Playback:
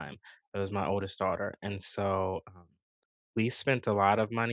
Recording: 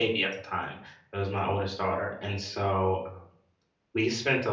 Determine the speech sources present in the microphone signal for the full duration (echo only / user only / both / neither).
echo only